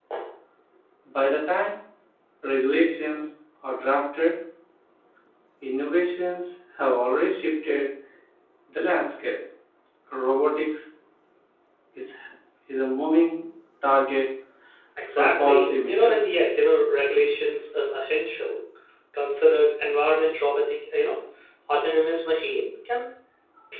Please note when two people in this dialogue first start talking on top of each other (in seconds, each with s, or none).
15.2 s